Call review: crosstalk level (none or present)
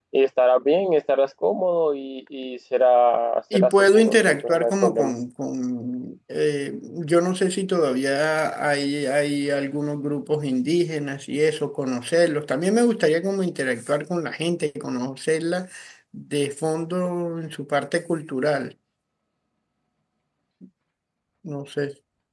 present